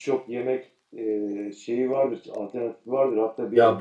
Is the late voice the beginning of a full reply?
No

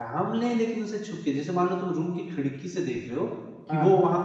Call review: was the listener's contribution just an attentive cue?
Yes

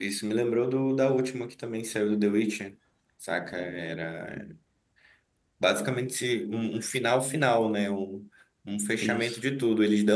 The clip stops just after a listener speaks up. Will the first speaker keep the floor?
Yes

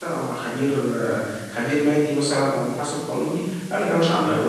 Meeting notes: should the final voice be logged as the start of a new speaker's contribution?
No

